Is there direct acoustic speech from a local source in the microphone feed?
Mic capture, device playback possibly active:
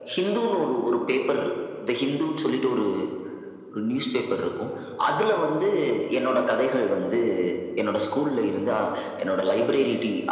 No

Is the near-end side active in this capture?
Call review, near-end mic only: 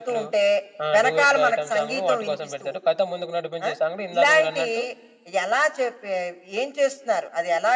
No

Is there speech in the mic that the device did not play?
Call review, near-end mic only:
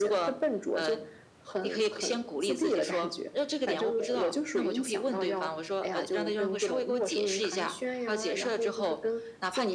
No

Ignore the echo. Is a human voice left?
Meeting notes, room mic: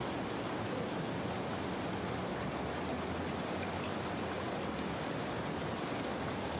No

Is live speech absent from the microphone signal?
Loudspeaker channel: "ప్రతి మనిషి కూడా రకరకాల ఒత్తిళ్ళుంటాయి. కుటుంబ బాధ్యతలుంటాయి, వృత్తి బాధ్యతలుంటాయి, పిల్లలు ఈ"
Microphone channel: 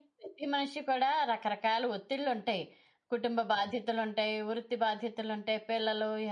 Yes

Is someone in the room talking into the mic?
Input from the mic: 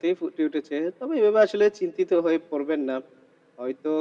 No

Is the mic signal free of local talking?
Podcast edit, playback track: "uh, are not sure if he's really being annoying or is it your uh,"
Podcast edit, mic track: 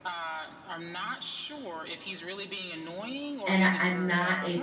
No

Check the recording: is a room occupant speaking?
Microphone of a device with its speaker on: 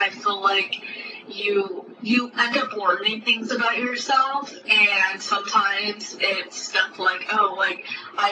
No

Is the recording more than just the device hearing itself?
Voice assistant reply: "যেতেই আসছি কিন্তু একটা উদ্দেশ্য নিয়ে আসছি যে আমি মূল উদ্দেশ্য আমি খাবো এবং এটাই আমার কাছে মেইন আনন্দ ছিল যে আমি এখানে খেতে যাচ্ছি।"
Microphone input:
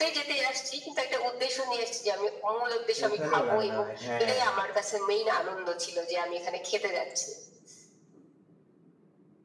Yes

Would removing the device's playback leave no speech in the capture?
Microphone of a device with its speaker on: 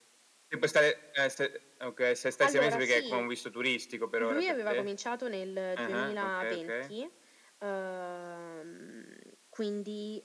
Yes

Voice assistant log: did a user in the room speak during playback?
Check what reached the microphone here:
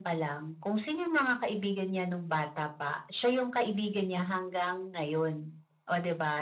No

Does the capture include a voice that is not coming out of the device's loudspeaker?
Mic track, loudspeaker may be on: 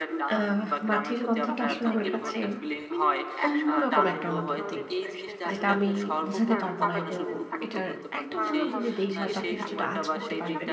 Yes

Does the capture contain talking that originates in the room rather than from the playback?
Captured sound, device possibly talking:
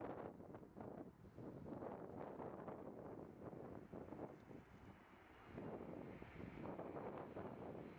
No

